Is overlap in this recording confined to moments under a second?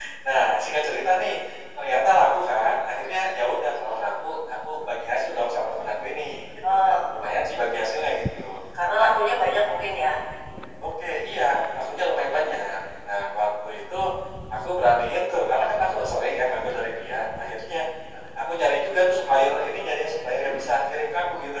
Yes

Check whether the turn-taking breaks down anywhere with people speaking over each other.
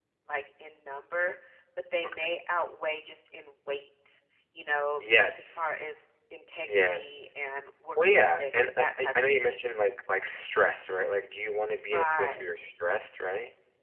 Yes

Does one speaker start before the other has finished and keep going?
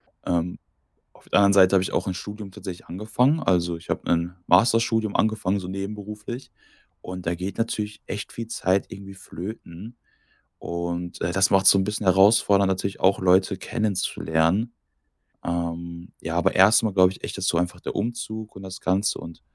No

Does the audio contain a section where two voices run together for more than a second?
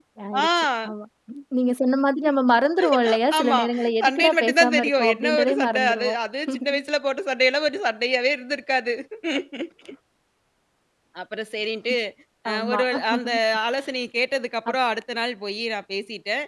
Yes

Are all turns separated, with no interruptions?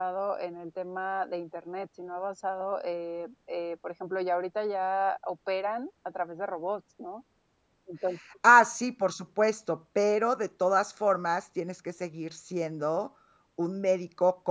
Yes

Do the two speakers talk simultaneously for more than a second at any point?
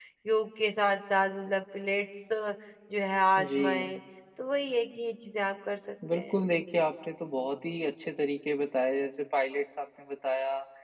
No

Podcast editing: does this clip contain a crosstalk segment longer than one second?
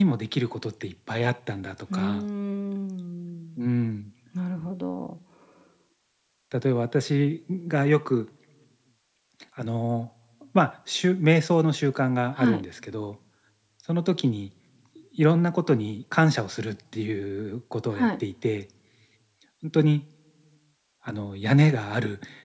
No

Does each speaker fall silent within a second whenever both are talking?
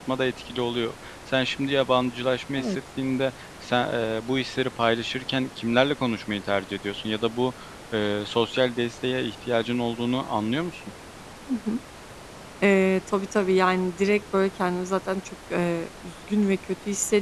Yes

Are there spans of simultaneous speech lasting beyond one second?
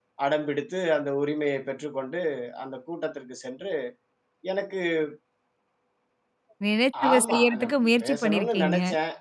Yes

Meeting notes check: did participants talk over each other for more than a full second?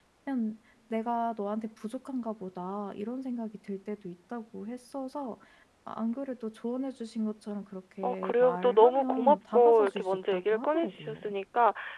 Yes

